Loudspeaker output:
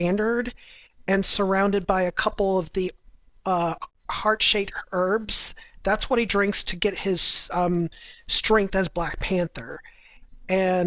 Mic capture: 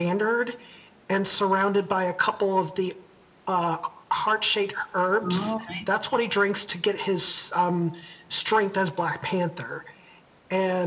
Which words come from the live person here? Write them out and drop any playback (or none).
Oh, I see.